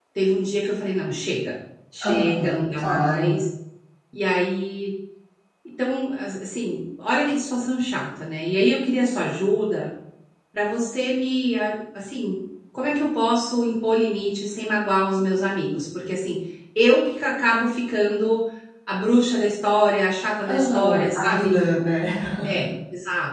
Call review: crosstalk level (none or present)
present